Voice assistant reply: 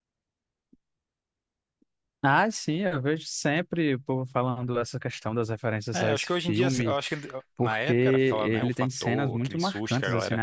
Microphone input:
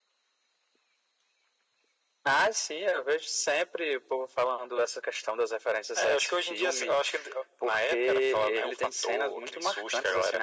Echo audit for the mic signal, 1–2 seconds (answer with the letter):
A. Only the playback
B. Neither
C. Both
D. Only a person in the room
B